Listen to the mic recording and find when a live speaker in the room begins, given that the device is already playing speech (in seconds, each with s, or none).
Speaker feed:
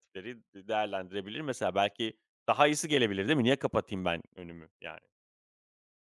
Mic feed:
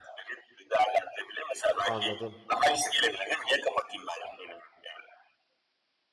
1.8 s